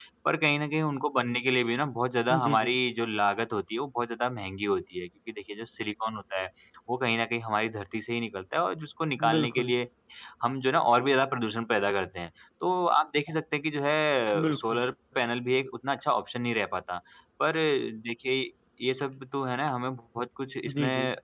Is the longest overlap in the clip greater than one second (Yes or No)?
No